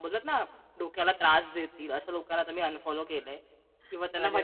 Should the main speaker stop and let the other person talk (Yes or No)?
No